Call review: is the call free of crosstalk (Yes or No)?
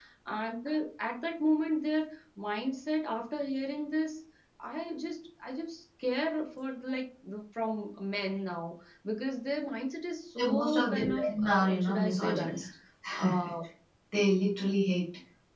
No